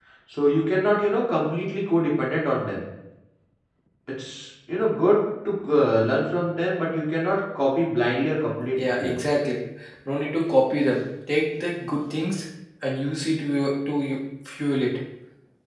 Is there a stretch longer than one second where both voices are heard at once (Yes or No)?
No